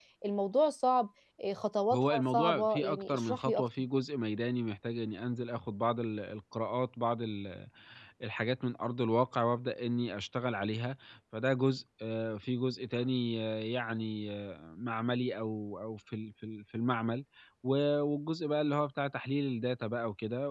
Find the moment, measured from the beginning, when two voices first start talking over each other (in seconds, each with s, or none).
1.9 s